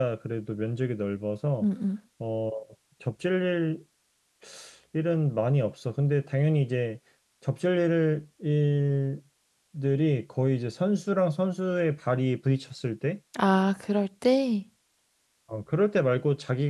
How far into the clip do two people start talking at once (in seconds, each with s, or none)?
none